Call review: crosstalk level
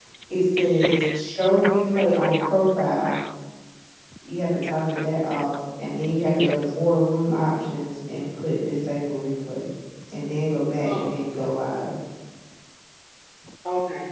present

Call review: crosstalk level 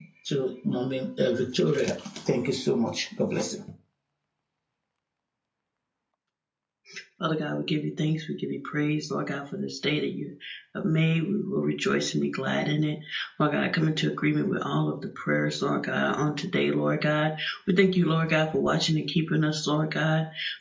none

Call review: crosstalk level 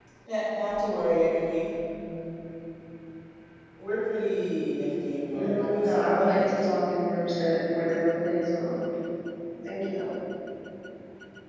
present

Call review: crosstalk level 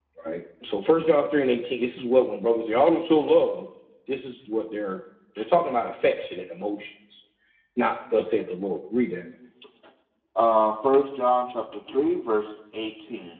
none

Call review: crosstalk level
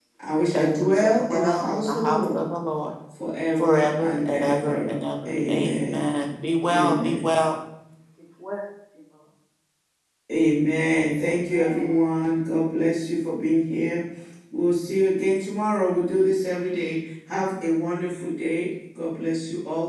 present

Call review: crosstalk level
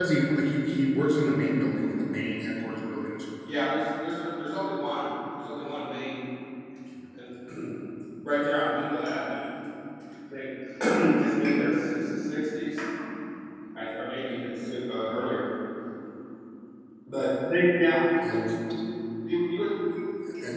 none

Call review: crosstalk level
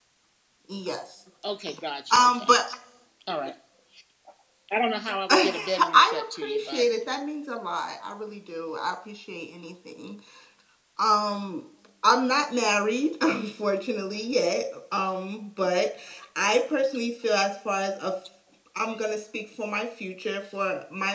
present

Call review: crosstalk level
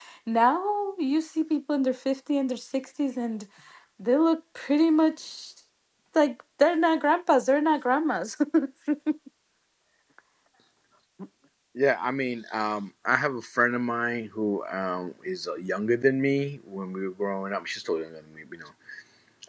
none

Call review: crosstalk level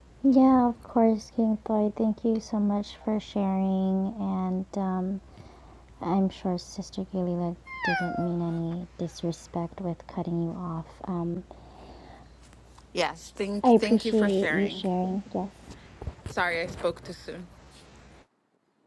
present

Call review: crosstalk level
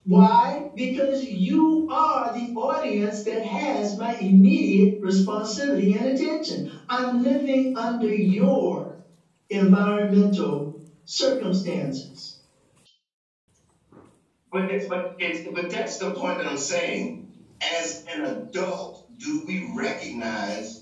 none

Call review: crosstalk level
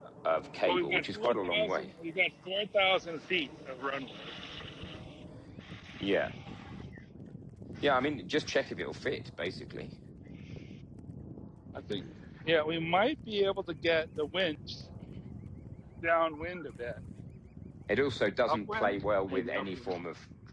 present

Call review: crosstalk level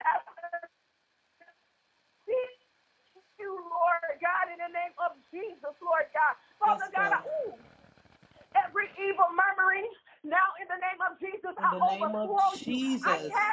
present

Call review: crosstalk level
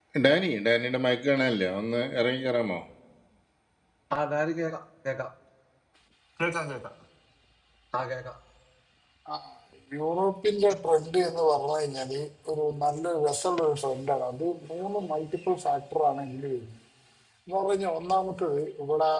none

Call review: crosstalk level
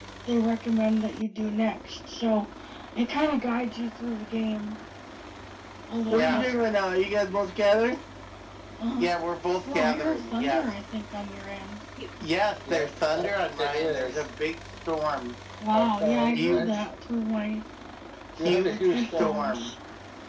present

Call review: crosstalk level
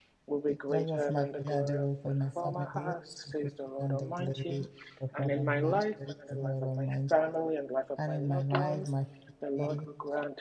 present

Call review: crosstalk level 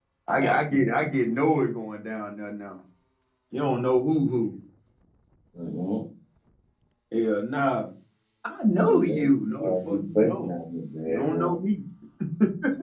present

